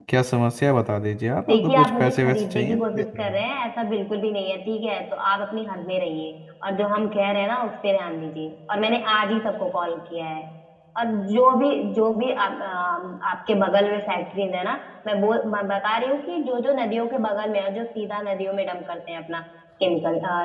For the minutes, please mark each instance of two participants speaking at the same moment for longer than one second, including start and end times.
1.5-3.4

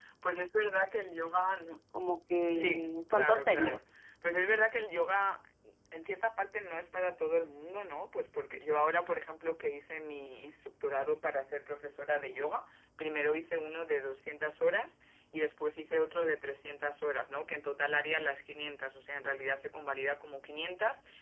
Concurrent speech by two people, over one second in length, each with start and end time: 2.5-3.8

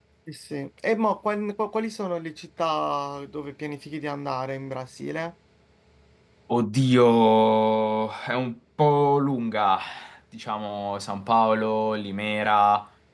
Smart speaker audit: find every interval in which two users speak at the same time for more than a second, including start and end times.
none

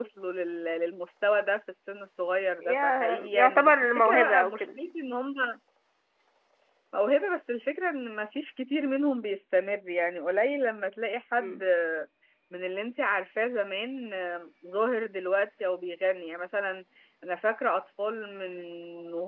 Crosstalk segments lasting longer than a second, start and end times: 2.6-4.8

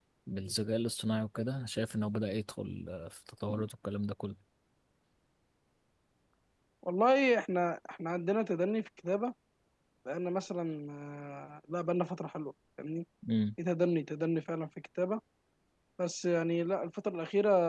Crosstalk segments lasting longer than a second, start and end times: none

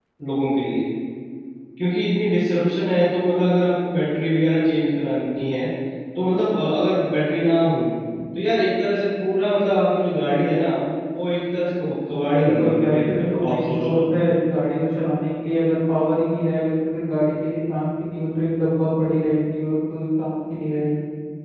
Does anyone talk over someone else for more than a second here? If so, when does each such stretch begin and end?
12.3-14.0

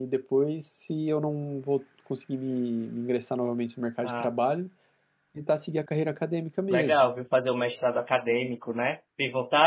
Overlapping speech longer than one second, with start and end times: none

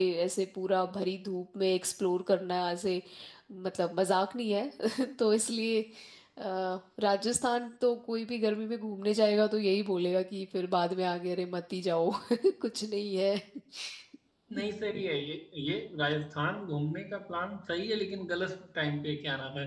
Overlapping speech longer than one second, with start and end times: none

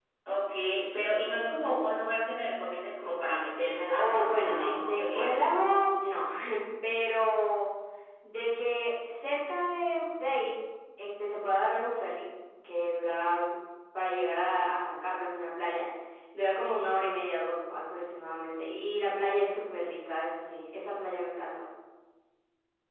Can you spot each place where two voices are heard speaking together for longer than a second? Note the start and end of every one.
3.9-5.4

